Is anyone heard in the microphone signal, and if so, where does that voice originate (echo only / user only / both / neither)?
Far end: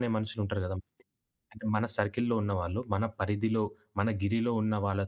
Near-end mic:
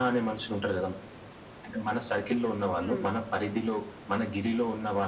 both